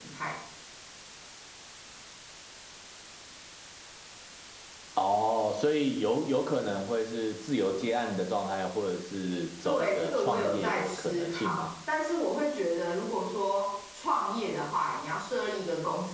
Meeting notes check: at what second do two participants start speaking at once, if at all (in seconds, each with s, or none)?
9.6 s